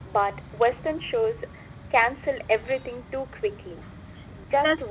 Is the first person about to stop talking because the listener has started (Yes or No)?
No